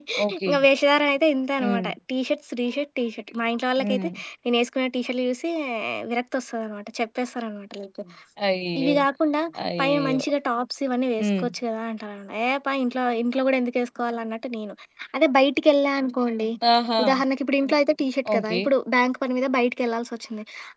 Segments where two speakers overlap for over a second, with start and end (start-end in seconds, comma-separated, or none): none